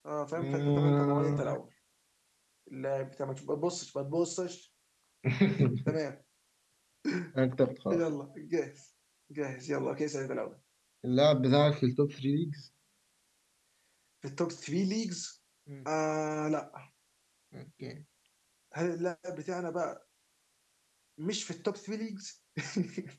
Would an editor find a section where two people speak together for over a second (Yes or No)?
Yes